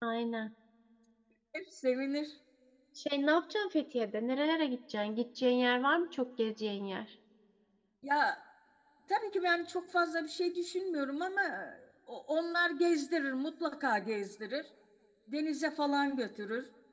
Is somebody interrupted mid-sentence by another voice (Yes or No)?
No